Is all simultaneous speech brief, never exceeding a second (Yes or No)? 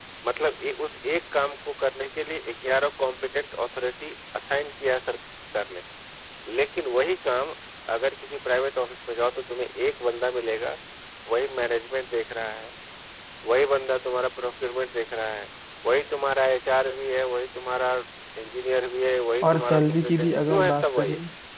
No